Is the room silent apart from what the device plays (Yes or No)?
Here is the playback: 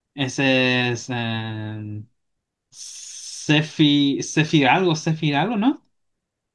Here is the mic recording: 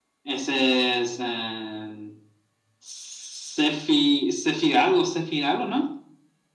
Yes